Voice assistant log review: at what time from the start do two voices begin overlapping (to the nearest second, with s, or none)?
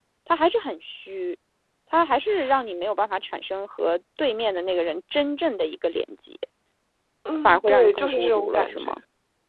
7 s